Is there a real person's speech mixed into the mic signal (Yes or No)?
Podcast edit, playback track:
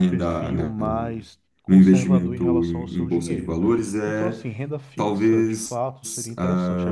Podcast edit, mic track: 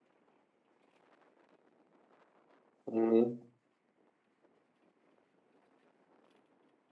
Yes